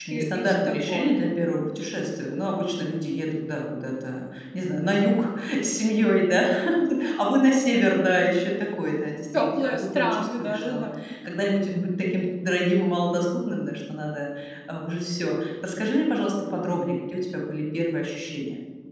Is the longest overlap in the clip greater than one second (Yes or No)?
Yes